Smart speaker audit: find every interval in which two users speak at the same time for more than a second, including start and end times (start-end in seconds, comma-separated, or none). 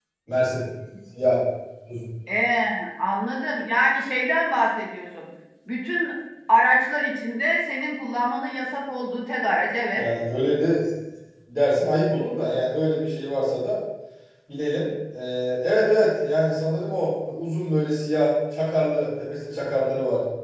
none